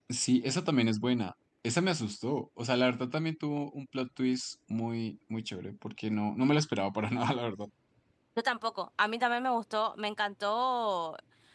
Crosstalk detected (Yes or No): No